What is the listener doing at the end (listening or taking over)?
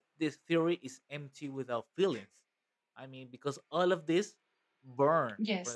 listening